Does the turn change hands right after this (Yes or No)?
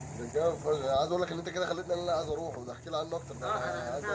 Yes